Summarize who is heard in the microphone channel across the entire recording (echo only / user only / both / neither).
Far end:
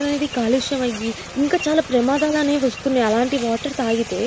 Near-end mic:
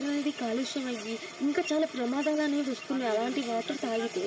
both